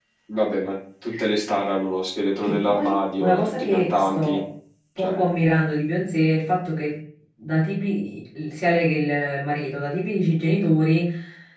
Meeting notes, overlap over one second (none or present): present